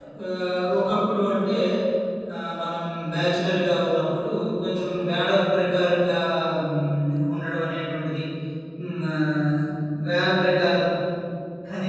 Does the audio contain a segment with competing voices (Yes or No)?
No